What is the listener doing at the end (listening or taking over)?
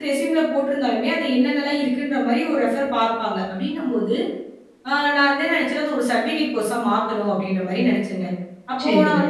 listening